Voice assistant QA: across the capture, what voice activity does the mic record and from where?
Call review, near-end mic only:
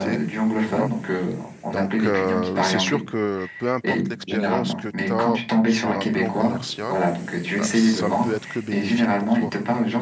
both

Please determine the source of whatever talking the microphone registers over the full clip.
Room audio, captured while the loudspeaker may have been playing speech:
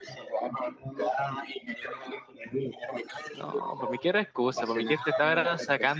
both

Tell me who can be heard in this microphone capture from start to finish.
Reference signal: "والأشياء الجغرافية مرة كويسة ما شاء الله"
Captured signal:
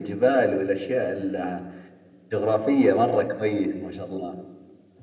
echo only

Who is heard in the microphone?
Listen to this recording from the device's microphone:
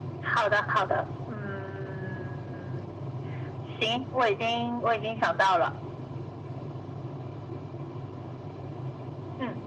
echo only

